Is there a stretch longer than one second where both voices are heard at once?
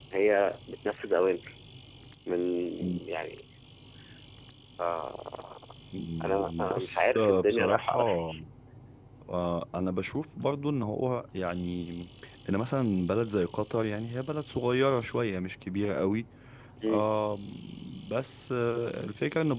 Yes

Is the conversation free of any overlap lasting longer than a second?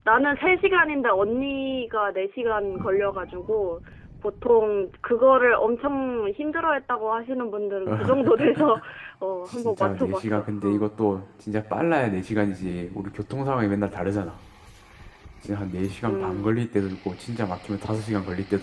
No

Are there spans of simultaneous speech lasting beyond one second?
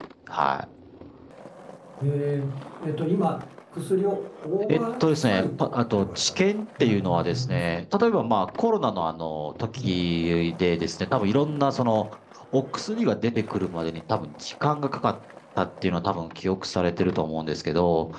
Yes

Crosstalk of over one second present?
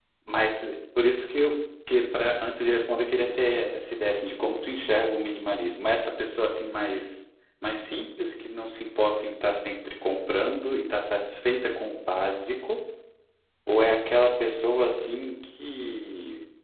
No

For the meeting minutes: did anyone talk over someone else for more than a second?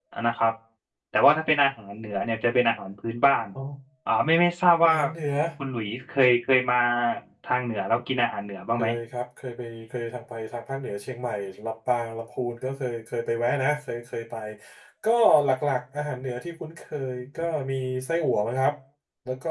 No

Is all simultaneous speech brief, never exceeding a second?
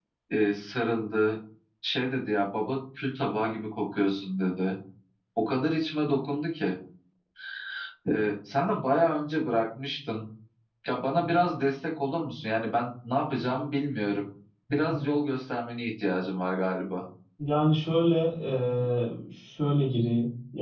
Yes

